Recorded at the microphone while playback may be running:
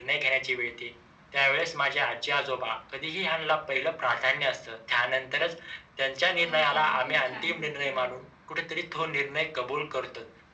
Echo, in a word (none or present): present